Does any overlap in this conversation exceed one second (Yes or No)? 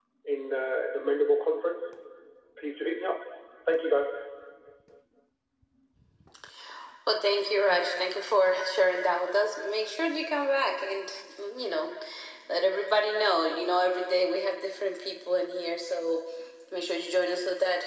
No